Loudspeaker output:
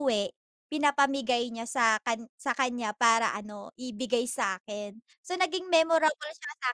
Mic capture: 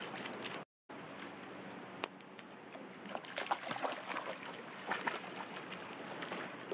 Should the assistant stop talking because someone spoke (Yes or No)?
No